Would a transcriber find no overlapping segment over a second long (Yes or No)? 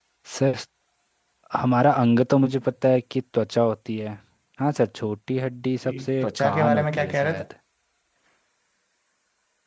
No